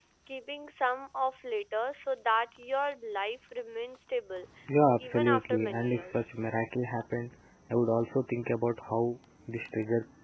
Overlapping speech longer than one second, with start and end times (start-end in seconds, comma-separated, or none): 5.0-6.3